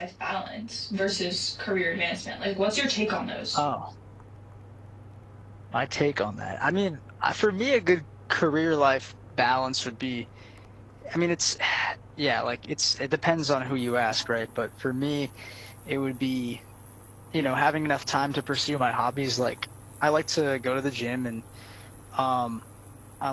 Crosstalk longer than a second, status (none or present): none